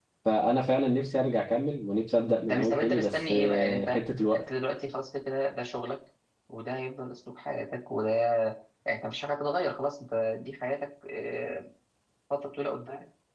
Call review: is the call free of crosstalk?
No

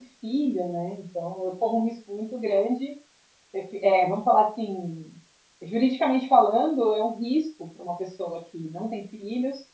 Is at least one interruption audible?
No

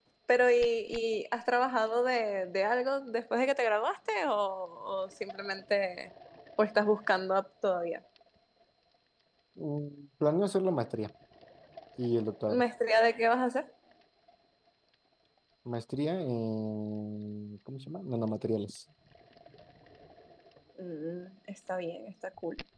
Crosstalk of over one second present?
No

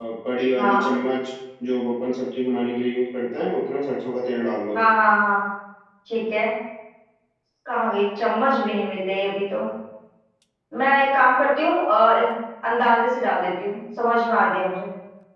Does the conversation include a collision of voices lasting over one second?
No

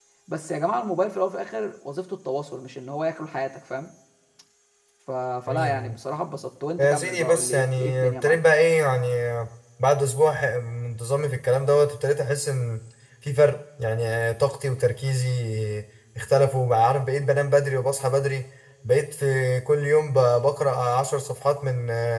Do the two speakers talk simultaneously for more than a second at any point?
Yes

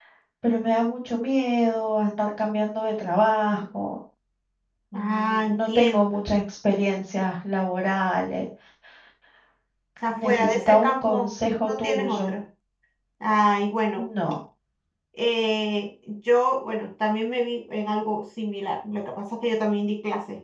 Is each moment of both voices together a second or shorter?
No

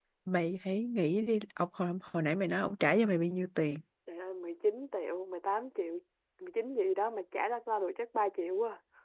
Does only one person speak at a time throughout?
Yes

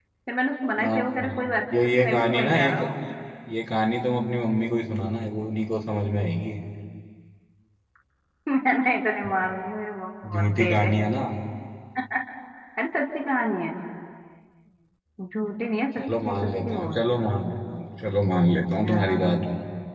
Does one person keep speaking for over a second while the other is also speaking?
Yes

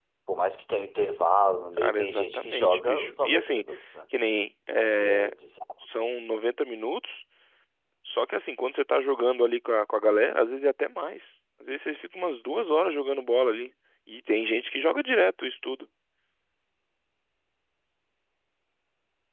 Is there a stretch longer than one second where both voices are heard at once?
Yes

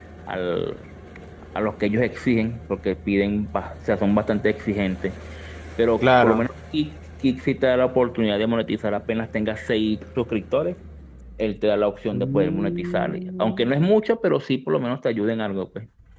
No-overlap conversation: No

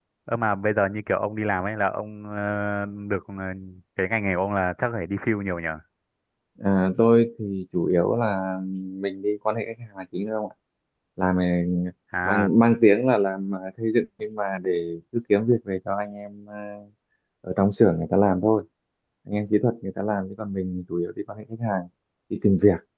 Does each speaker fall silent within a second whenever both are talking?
Yes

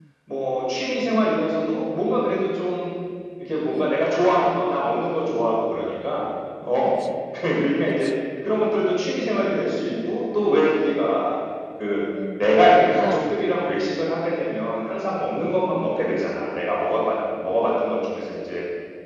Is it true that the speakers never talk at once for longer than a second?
Yes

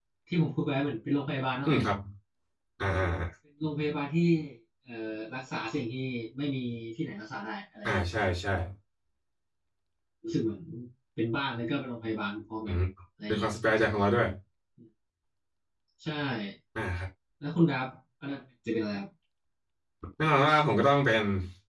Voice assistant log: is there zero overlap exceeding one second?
Yes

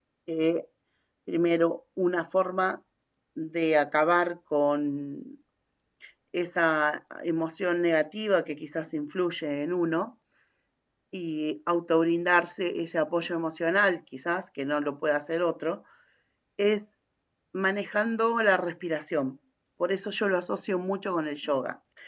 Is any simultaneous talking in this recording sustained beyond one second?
No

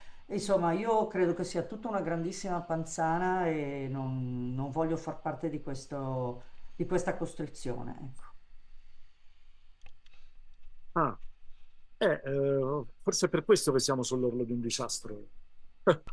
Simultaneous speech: No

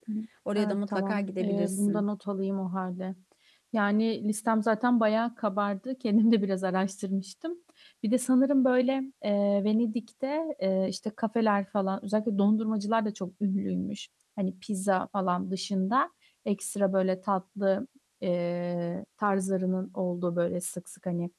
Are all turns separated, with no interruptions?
No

